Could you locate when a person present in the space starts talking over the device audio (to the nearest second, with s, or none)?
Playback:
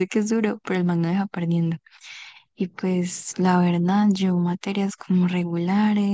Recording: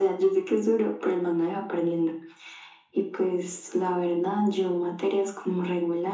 none